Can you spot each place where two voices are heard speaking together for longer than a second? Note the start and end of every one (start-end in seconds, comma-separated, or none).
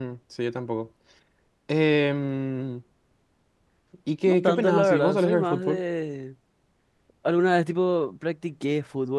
4.3-5.8